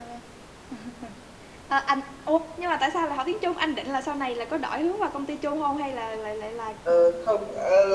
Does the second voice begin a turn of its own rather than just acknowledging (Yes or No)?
Yes